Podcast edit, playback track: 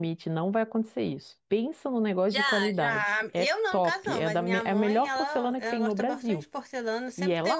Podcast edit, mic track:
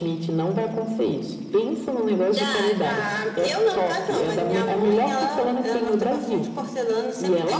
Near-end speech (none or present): none